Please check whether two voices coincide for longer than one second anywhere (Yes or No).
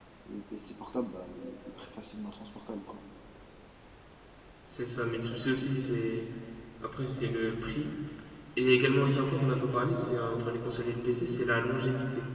No